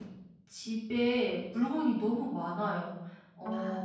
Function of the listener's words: listening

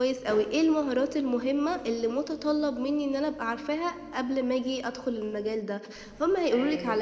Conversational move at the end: listening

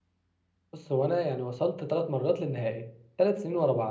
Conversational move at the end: listening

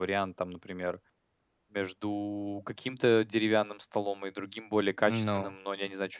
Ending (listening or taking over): listening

